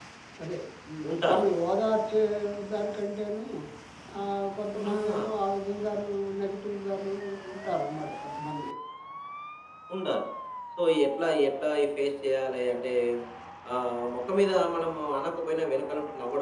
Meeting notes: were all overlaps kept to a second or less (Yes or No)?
Yes